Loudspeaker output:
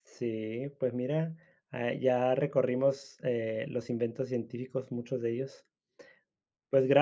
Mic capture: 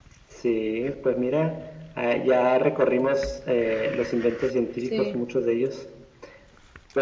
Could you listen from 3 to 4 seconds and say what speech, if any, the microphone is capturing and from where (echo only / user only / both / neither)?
echo only